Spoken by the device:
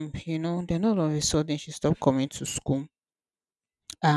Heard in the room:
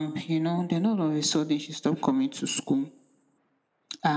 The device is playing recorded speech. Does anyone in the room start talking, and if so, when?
none

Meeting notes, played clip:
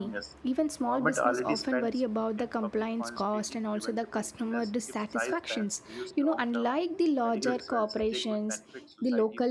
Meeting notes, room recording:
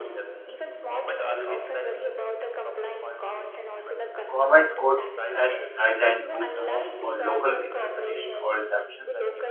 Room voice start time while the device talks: 4 s

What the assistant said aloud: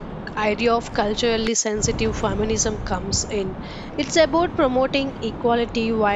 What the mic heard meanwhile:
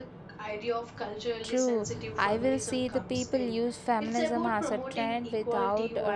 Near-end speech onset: 1 s

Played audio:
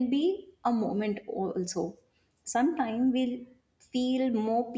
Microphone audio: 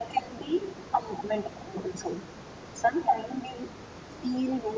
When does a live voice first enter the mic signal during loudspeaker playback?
none

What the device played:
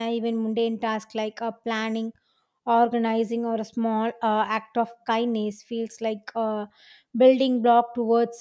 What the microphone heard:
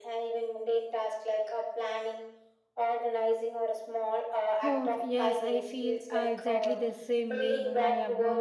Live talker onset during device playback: 5 s

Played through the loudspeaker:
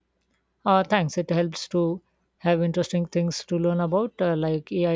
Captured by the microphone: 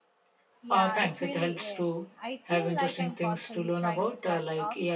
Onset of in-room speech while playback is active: 1 s

